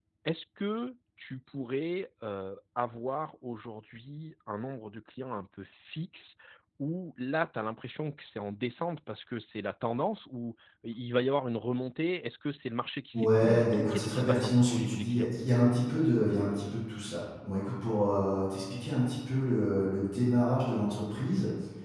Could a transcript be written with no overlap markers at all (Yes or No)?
No